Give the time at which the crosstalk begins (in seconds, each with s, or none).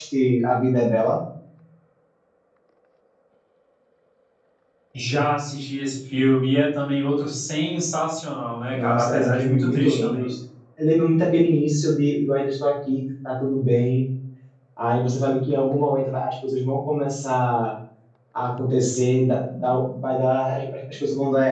8.7 s